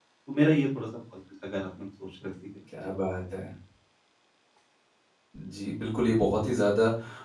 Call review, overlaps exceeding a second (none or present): none